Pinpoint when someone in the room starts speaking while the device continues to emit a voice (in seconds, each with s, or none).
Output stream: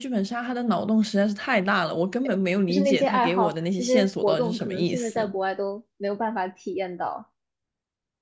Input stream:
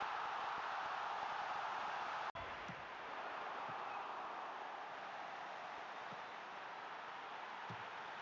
none